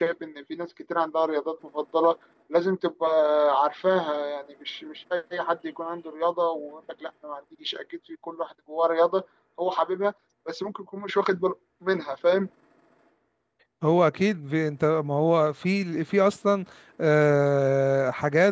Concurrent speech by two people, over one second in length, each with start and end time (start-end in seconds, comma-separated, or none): none